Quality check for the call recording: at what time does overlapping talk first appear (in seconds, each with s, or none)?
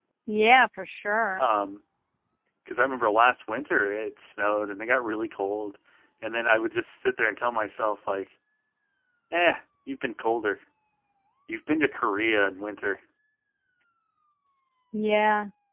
none